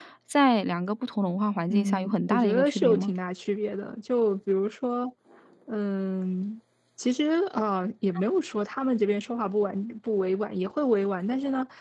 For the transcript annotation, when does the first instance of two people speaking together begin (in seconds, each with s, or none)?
1.7 s